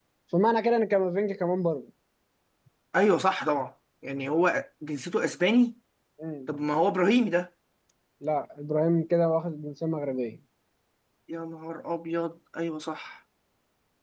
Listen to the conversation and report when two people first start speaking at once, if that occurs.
none

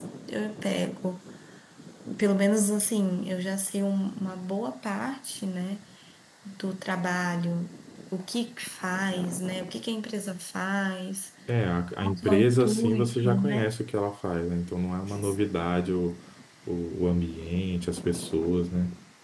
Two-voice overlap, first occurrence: 12 s

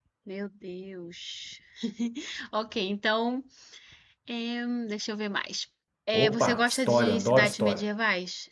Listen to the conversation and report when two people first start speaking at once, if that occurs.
6 s

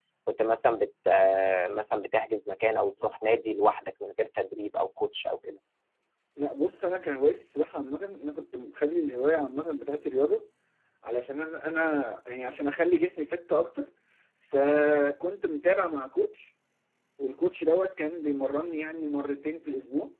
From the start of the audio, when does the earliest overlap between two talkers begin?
none

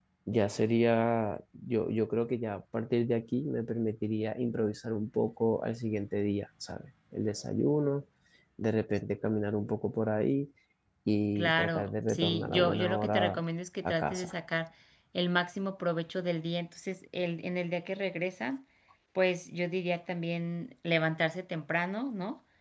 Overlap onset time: 11 s

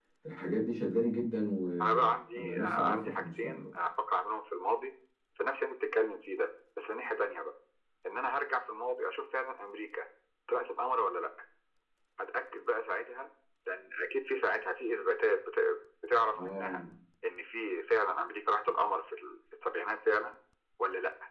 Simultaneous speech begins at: 2 s

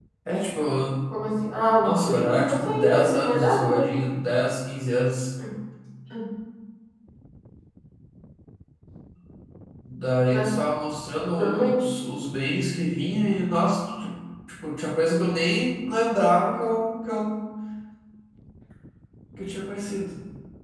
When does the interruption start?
2 s

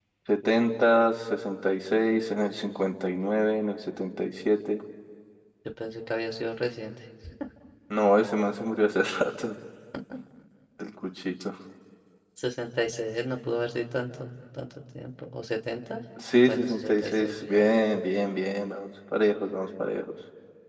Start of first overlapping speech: 16 s

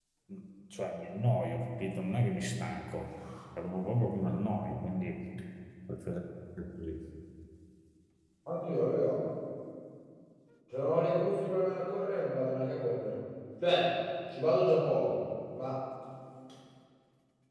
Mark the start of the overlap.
none

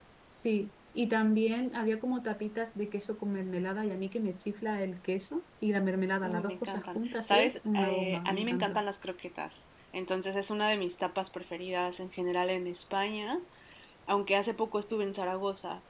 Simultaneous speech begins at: 6 s

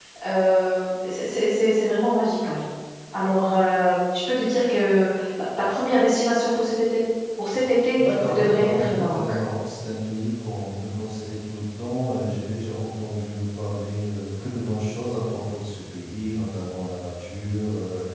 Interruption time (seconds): 8 s

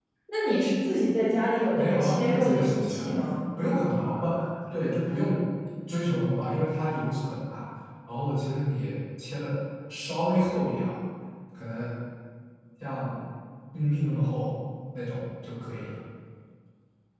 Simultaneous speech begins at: 2 s

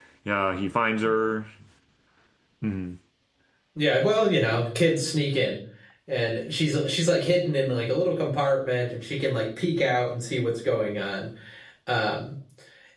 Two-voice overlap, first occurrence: none

